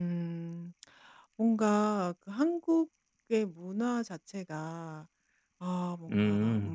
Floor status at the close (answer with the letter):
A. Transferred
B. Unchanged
B